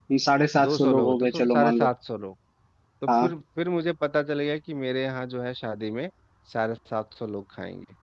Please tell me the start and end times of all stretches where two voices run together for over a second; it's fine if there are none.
0.6-1.9

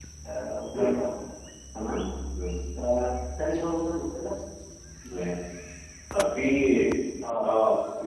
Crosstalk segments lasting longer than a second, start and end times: none

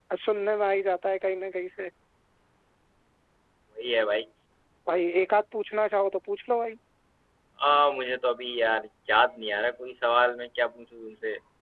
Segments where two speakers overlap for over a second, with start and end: none

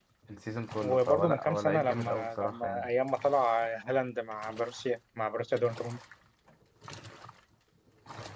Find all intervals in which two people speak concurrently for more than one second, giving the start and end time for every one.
0.8-2.9

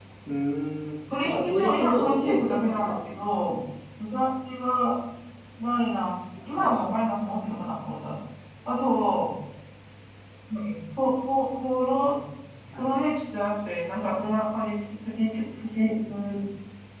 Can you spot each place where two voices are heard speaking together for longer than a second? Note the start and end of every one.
1.2-3.0

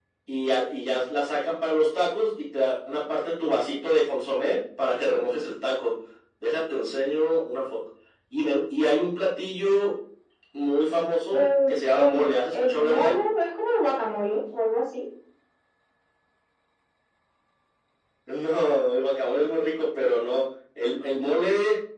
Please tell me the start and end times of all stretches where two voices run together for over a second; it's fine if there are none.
11.3-13.2

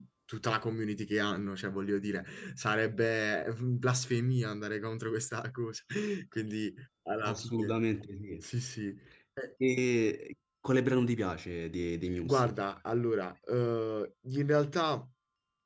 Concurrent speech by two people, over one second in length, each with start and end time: none

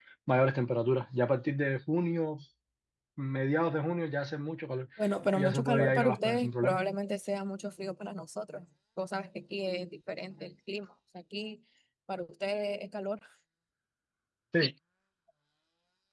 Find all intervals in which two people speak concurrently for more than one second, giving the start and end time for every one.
5.4-6.8

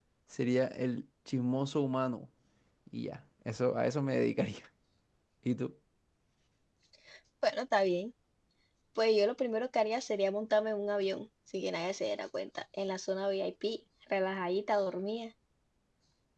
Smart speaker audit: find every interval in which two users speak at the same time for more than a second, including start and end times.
none

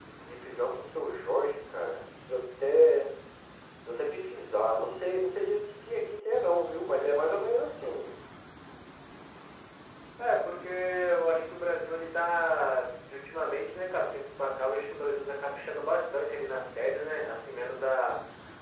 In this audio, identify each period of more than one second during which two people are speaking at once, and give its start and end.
none

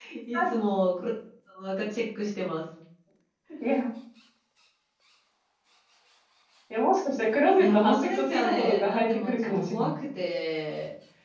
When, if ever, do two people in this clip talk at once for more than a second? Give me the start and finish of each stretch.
7.6-9.9

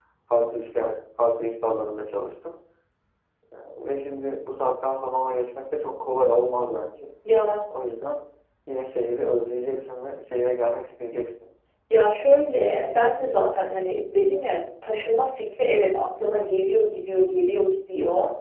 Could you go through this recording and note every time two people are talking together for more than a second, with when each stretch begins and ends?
none

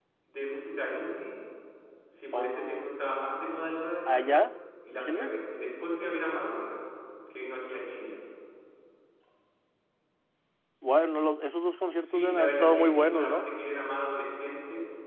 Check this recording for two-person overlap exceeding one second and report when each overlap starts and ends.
12.0-13.5

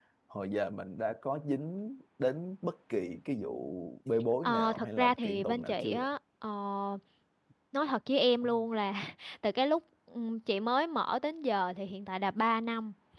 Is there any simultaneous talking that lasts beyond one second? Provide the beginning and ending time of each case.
4.4-6.1

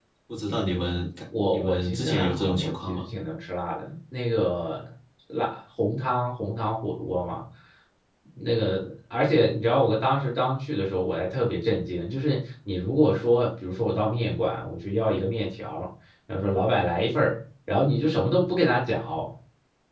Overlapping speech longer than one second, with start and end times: 1.5-3.0

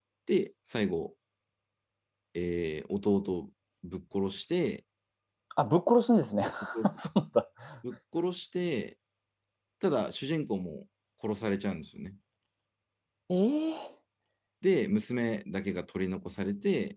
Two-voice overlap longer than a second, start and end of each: none

